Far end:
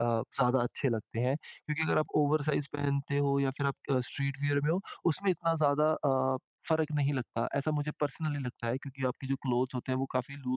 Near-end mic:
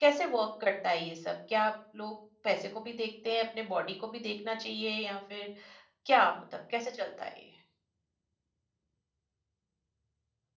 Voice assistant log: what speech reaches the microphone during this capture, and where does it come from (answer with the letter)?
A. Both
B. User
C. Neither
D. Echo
B